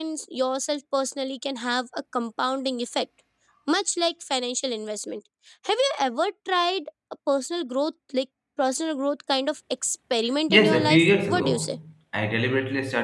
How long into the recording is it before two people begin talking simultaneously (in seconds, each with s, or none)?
10.5 s